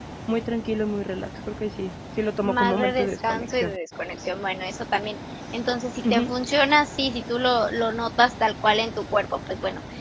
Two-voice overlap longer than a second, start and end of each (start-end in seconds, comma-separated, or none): 2.4-3.7